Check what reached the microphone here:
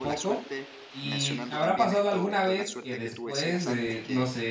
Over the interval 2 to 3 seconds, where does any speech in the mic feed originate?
both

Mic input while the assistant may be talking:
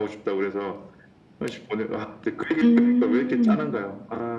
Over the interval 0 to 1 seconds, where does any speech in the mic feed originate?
echo only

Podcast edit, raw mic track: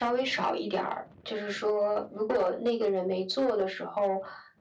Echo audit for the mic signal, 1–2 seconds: echo only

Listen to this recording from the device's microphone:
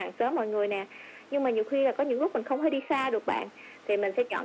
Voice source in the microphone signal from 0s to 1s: echo only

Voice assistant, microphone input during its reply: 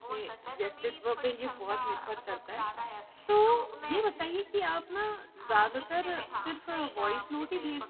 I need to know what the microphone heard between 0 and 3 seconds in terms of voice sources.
both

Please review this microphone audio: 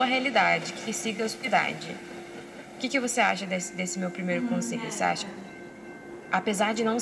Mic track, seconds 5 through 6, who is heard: both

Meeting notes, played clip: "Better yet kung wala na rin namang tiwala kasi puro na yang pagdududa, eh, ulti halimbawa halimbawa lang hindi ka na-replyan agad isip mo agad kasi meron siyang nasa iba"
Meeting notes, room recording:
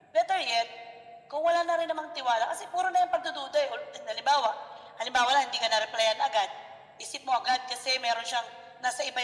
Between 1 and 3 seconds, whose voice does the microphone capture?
echo only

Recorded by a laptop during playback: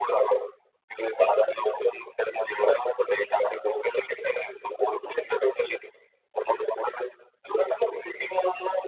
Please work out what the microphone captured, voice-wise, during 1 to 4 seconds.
echo only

